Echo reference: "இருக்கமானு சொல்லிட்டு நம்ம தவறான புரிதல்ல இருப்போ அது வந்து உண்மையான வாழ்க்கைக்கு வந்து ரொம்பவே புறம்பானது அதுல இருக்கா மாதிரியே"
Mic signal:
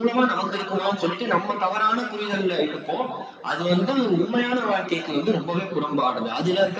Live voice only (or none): none